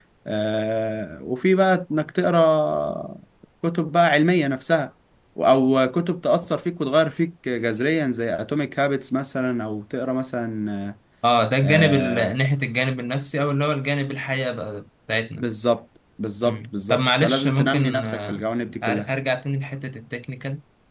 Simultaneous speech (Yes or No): Yes